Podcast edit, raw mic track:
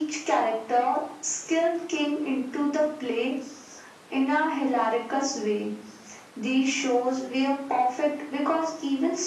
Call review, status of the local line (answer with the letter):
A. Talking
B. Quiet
B